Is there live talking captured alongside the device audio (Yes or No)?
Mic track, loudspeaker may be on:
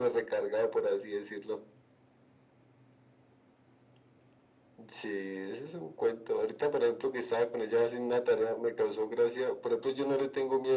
No